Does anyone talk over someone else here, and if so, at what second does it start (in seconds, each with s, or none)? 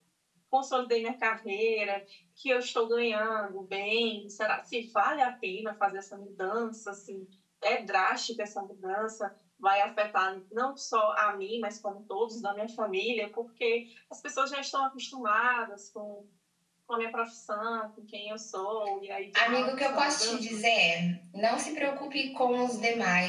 19.3 s